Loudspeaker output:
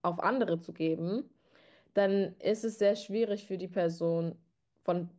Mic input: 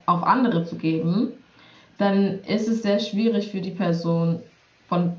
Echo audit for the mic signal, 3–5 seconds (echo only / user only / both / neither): echo only